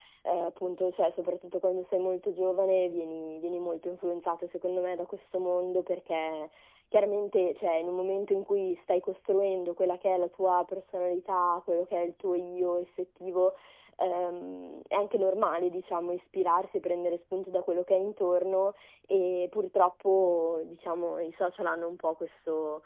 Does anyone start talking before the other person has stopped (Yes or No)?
No